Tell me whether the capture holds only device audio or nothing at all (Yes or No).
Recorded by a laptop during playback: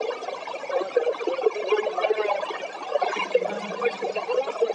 No